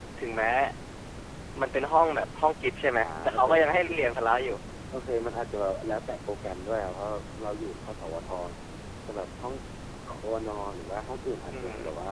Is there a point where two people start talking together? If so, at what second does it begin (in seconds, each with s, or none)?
2.9 s